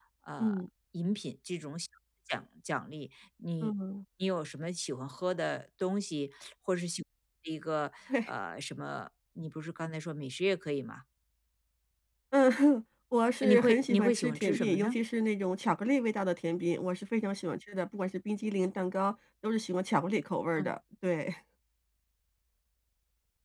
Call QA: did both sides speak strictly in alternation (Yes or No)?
No